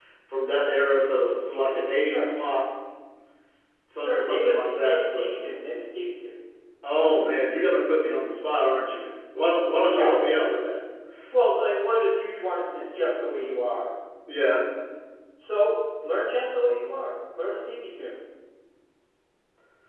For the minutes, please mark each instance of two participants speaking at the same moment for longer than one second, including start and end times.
4.0-5.3

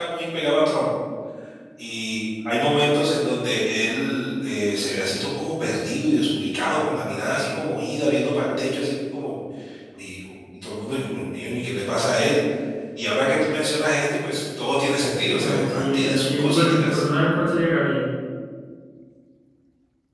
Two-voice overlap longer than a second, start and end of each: 15.4-17.0

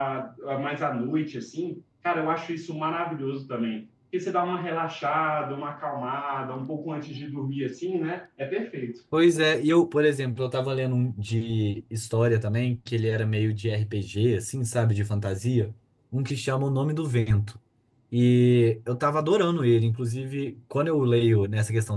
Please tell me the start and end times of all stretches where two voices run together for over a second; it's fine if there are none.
none

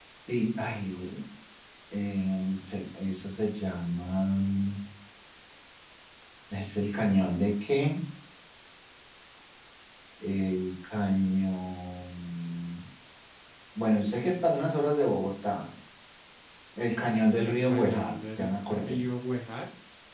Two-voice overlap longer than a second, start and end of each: 17.4-19.0

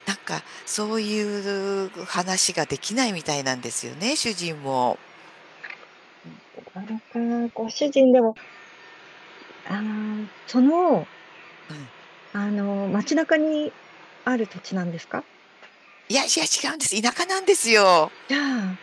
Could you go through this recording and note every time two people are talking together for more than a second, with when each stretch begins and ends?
none

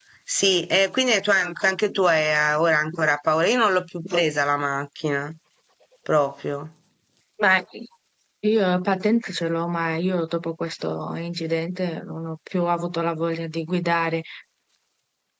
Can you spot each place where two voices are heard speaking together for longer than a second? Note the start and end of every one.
none

